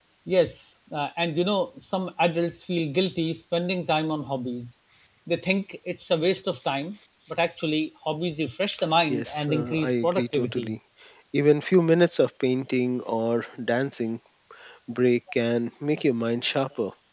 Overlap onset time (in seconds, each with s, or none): 9.1 s